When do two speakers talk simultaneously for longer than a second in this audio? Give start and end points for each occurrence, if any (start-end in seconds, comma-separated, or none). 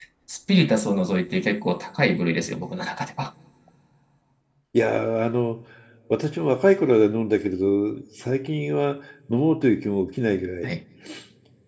none